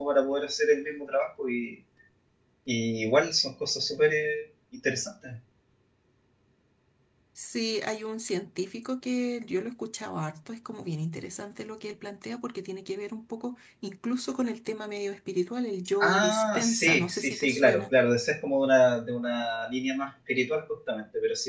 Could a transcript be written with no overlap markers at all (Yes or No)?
No